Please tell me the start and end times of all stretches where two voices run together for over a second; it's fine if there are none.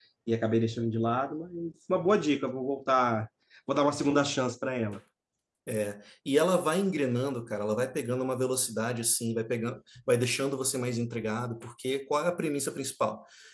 none

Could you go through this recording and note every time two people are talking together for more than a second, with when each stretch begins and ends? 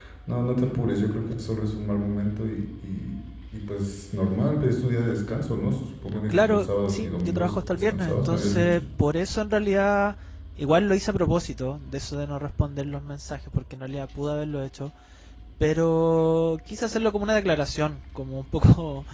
6.3-8.8

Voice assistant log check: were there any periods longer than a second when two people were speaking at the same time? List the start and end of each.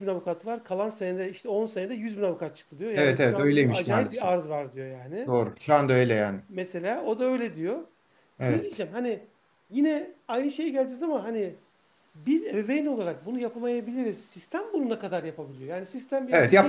3.0-4.2

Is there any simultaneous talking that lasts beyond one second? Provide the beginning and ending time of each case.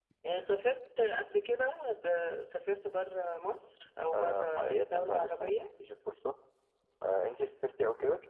4.1-5.7

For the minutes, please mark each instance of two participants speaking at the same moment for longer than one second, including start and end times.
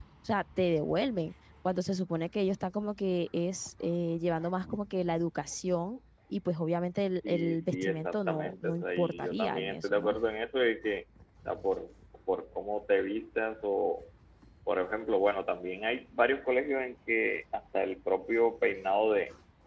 7.3-10.2

